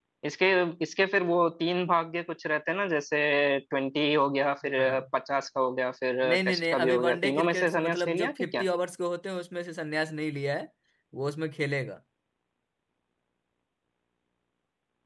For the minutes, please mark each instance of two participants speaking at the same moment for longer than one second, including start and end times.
6.2-8.6

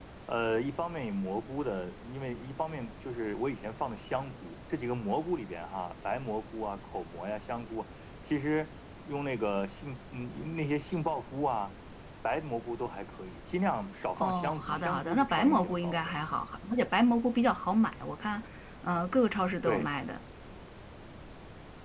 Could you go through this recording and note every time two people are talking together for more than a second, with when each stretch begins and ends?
14.2-16.1

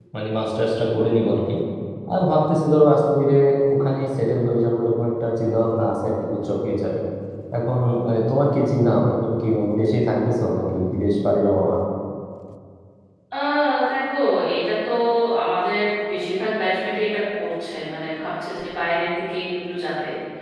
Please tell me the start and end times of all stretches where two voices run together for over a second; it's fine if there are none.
none

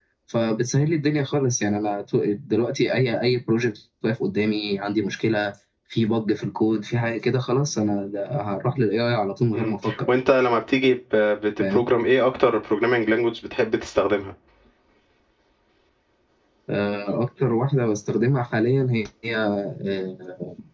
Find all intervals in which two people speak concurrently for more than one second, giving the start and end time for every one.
none

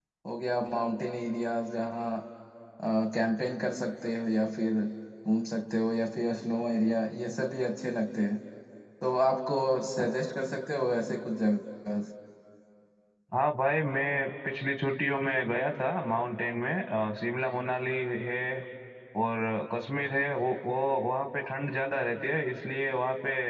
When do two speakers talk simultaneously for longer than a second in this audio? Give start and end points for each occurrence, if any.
none

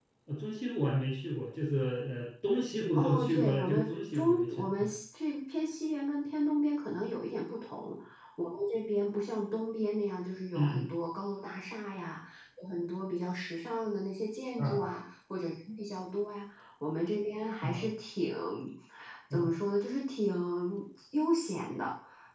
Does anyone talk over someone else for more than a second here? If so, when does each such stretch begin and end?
3.0-4.9

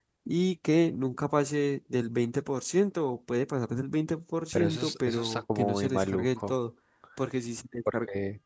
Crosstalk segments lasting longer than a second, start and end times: 4.5-6.5

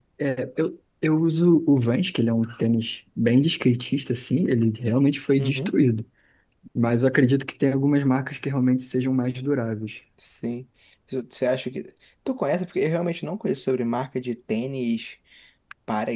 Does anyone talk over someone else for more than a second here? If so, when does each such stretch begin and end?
none

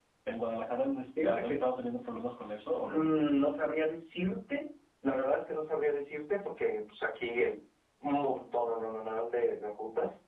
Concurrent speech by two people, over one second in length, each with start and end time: 1.2-3.1

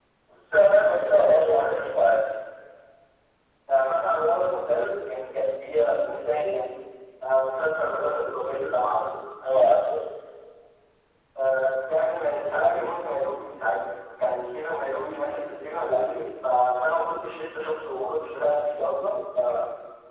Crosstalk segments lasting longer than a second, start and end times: none

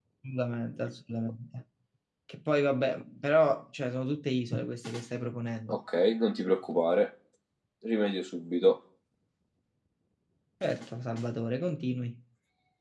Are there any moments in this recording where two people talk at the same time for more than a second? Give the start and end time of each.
none

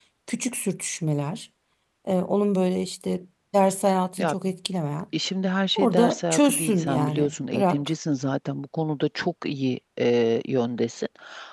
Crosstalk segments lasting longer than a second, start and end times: 5.8-7.9

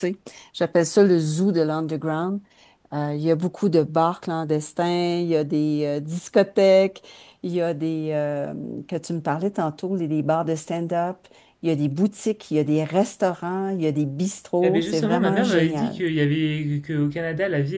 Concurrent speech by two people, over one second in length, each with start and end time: 14.6-16.0

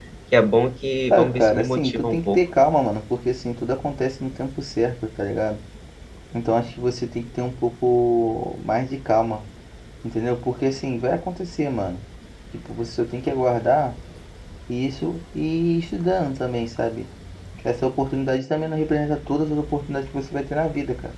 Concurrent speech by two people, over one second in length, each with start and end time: 1.1-2.4

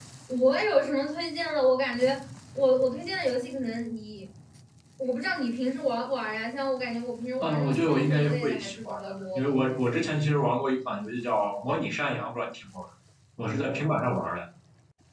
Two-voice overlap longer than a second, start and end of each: 7.4-9.5

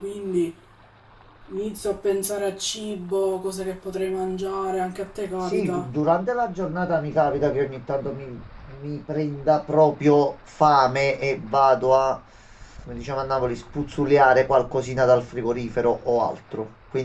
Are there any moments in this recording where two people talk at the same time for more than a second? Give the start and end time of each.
none

